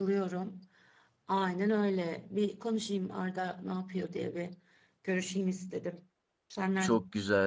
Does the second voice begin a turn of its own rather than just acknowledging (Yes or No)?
Yes